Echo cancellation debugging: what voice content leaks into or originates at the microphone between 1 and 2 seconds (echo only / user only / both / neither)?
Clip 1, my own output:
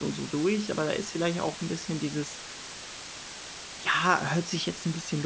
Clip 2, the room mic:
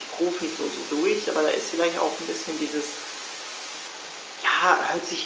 echo only